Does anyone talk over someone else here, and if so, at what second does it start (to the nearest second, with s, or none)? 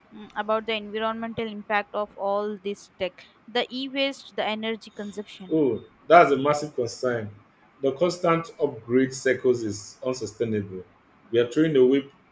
none